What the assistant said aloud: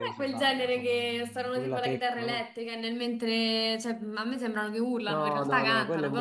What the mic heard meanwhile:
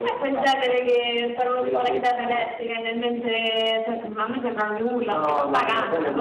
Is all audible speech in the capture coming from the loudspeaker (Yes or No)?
Yes